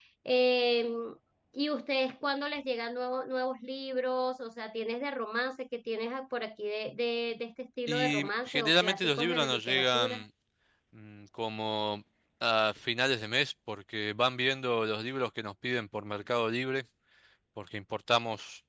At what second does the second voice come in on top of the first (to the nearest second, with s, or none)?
8 s